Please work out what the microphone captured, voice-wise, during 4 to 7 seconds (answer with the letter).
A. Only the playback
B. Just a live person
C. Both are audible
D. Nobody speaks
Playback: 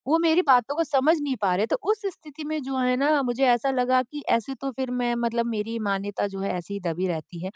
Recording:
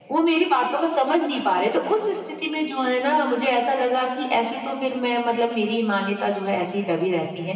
A